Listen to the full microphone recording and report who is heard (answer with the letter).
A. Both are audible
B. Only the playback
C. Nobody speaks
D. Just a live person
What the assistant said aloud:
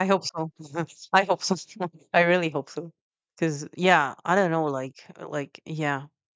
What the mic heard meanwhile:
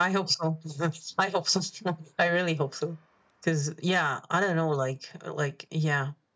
B